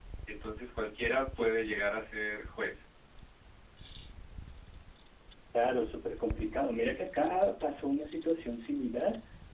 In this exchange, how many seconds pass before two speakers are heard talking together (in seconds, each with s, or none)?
none